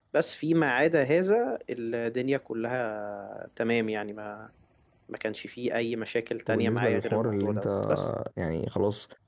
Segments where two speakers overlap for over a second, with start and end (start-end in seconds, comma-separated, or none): 6.5-7.9